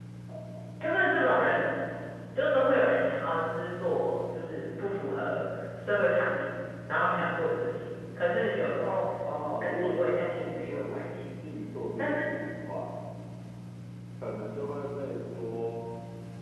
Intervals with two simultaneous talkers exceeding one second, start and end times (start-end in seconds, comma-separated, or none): 9.6-11.2